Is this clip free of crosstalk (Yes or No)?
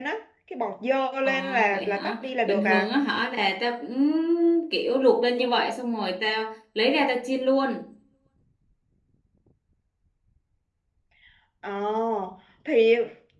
No